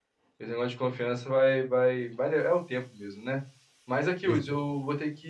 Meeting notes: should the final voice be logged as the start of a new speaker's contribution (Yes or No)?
No